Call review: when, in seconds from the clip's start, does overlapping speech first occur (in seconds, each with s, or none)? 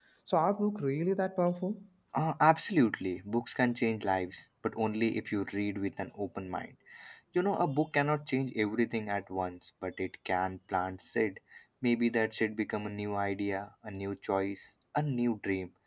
none